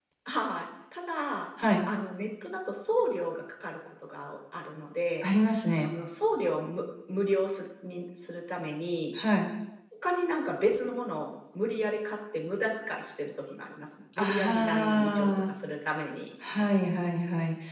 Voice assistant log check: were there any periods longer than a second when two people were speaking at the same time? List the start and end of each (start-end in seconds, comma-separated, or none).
14.2-15.5